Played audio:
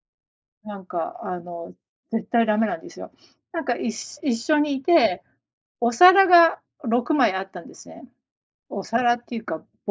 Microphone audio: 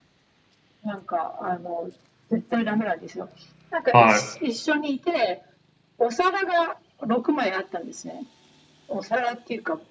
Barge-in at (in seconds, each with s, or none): 3.9 s